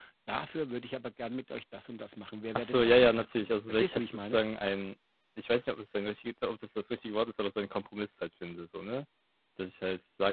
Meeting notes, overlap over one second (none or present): present